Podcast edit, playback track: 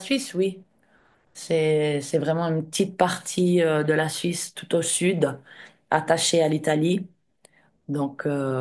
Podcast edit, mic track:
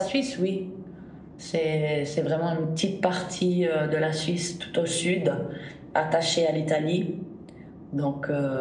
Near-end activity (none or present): none